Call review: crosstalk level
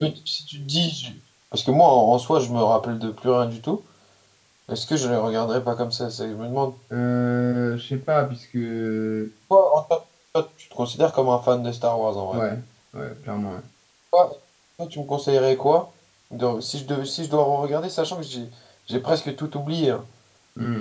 none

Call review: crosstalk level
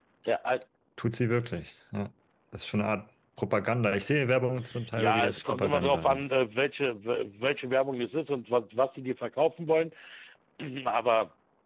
present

